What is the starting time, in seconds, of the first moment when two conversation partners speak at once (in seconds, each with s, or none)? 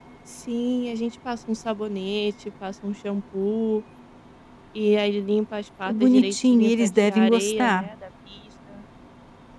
5.9 s